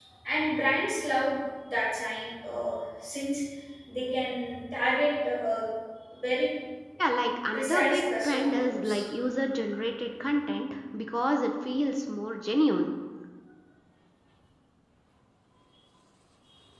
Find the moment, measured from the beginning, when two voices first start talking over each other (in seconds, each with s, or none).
7.5 s